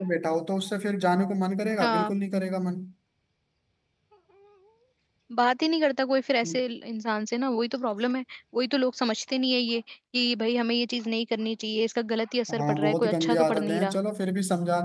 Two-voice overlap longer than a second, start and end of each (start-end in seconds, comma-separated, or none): 12.6-14.0